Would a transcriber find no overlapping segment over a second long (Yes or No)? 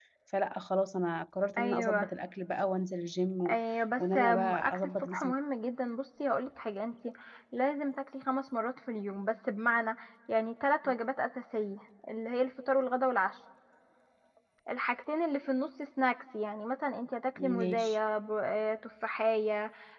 No